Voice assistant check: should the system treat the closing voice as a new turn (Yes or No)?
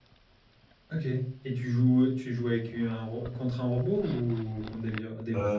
Yes